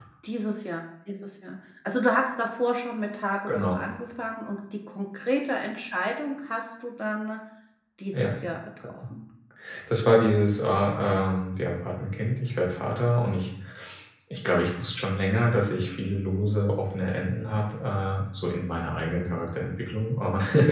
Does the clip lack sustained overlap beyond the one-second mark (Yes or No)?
Yes